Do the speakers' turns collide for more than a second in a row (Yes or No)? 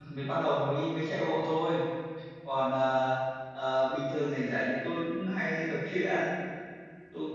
No